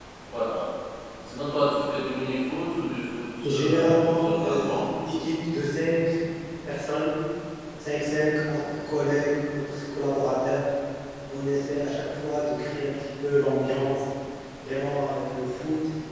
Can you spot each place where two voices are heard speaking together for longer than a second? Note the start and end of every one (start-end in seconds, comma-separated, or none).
3.4-4.8